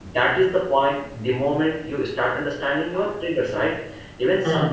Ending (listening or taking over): listening